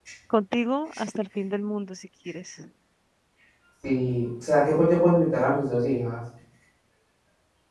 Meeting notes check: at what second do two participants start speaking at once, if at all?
none

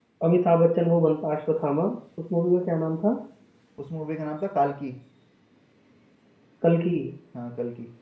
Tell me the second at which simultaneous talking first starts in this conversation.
none

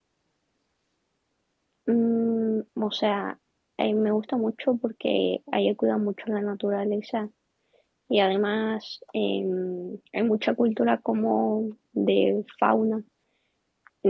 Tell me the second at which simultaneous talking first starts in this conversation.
none

